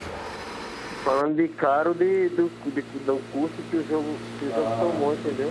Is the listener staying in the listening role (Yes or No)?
No